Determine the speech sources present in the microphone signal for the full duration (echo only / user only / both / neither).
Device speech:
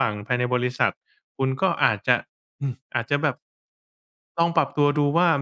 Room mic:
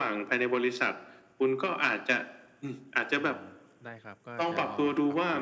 both